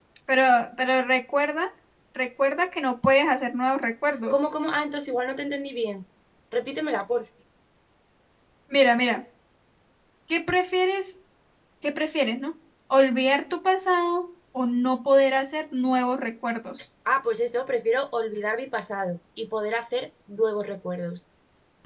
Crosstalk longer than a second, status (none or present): none